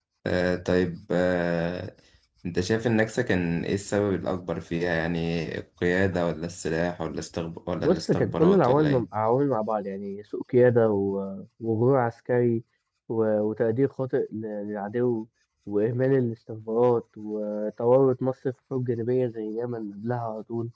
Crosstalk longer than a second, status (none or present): present